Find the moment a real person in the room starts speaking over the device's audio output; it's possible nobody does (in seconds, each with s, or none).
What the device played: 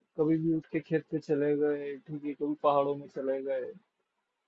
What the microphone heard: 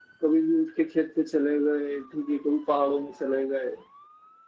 none